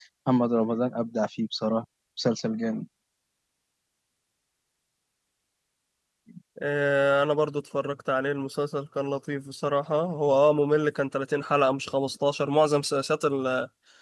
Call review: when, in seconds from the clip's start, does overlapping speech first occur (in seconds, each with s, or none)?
none